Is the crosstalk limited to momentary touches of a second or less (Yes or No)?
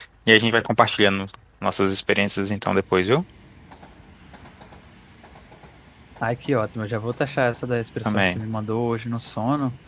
Yes